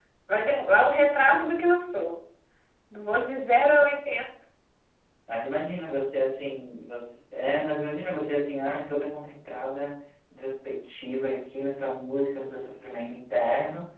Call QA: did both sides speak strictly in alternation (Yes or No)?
Yes